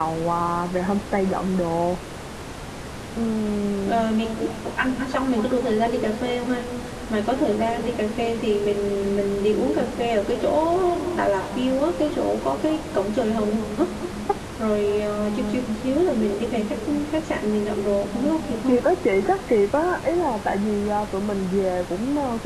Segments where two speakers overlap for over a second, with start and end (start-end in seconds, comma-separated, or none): none